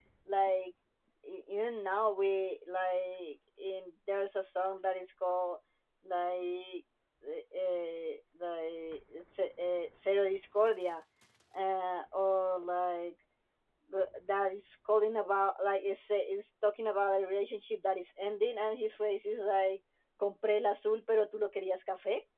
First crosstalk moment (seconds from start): none

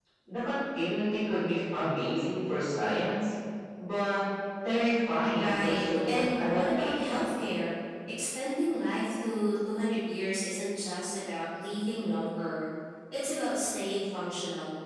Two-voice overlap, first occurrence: 5.4 s

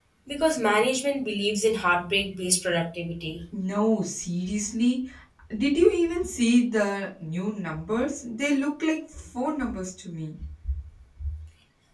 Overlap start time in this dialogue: none

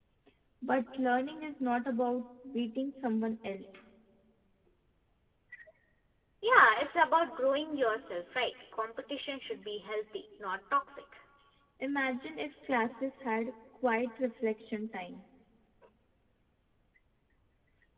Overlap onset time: none

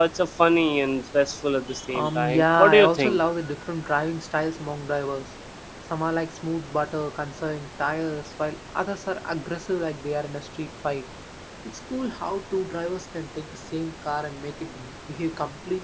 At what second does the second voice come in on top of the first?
1.9 s

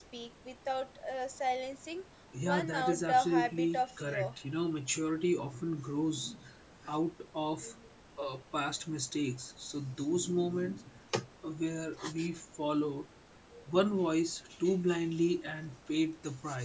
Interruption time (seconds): 2.4 s

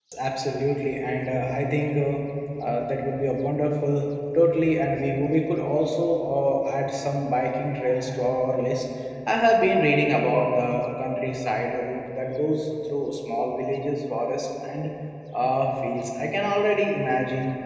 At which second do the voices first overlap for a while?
none

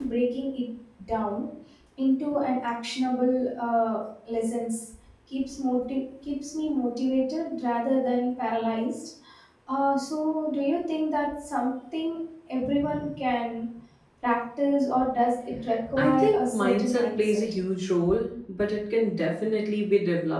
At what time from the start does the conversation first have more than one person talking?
16.0 s

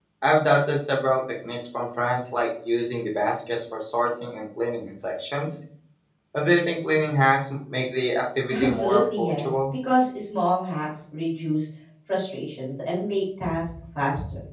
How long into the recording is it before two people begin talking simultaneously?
8.5 s

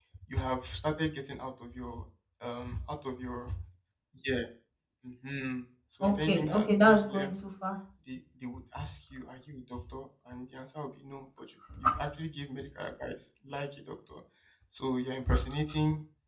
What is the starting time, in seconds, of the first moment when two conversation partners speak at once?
6.0 s

